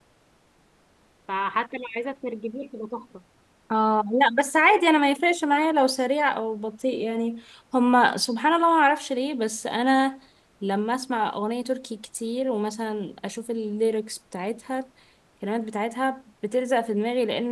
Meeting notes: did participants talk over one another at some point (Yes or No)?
No